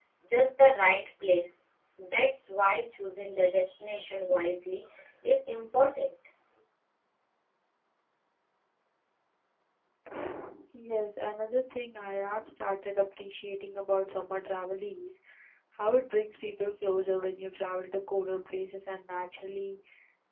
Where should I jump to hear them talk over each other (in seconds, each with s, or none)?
none